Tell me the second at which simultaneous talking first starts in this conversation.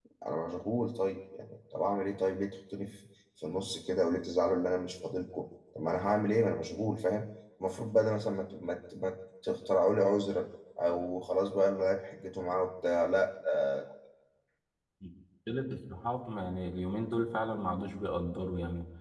none

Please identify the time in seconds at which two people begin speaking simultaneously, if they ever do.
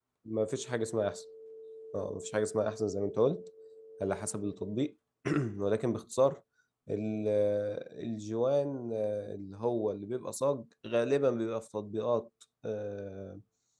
none

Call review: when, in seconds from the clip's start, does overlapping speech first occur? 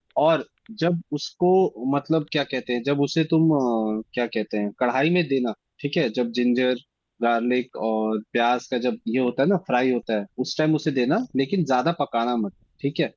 none

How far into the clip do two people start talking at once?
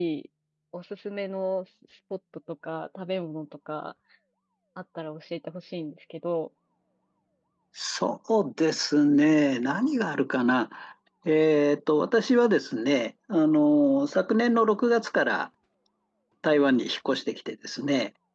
none

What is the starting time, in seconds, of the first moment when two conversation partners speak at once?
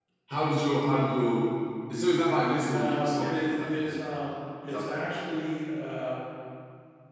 3 s

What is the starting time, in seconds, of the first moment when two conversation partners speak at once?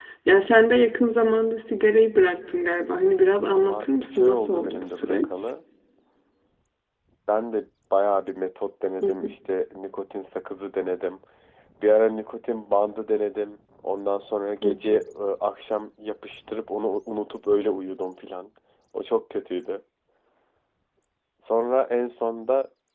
4 s

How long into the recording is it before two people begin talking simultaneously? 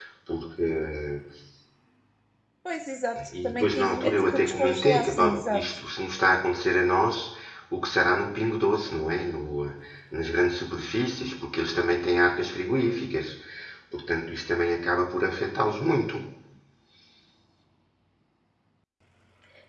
3 s

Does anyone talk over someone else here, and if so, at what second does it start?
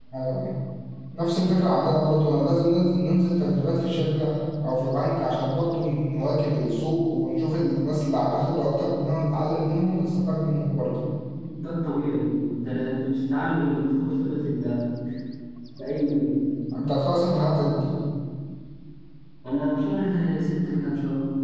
none

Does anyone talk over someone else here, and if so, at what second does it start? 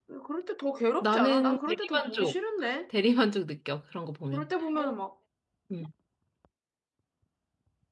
1 s

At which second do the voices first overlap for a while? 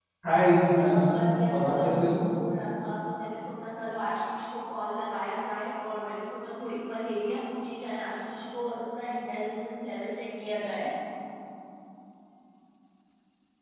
1 s

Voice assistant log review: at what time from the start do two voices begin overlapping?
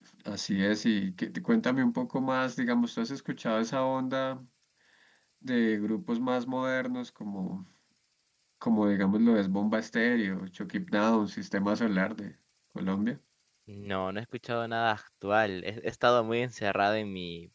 none

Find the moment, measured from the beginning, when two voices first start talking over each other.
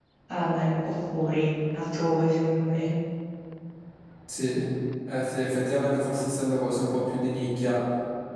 none

